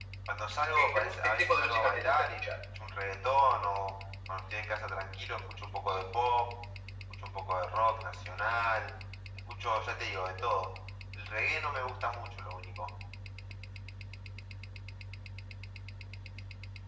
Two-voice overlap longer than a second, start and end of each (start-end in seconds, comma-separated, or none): 0.8-2.5